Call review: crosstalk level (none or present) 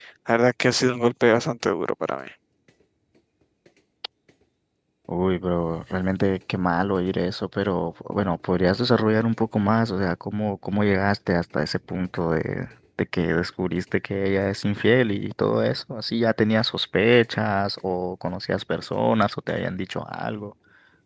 none